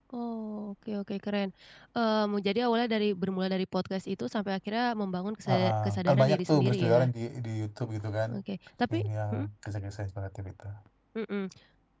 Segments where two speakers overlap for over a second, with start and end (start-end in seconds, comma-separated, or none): 5.5-7.1